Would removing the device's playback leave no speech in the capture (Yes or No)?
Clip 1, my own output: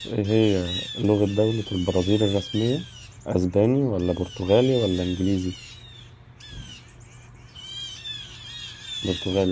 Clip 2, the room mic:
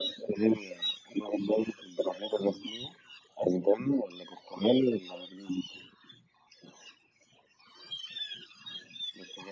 Yes